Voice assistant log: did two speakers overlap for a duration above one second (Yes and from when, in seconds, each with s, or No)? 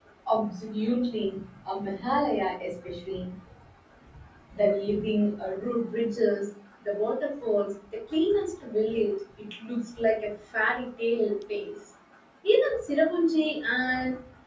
No